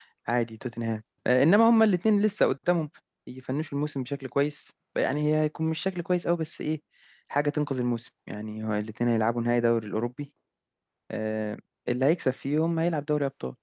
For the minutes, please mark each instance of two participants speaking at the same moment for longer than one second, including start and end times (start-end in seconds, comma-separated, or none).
none